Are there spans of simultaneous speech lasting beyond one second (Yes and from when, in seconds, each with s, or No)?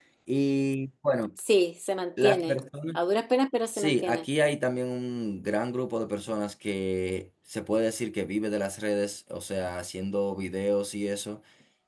No